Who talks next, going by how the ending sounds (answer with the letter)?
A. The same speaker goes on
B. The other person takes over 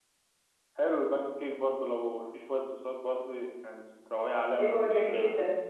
B